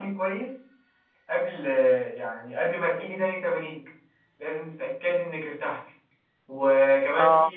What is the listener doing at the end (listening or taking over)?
listening